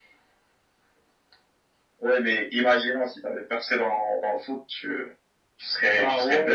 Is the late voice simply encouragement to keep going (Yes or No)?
Yes